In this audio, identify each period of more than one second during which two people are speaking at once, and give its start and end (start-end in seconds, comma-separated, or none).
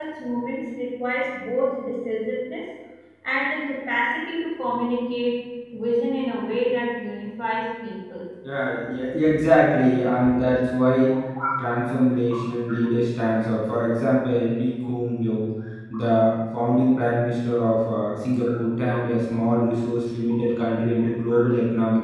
none